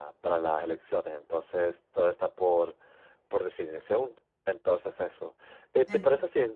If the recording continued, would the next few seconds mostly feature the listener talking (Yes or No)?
No